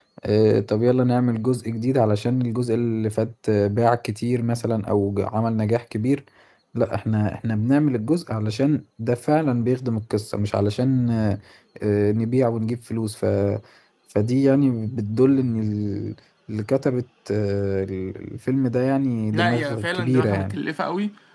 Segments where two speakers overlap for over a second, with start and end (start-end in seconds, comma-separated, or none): 19.3-20.6